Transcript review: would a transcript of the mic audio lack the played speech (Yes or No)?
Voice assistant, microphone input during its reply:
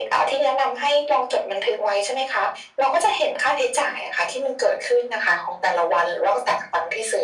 No